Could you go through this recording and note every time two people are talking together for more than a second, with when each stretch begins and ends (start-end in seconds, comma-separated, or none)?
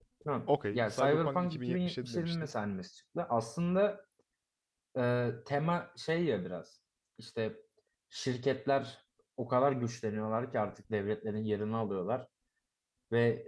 0.7-2.5